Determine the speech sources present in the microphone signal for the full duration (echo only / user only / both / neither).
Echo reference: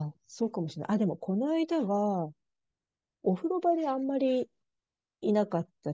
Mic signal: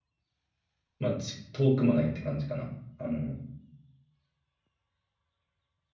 user only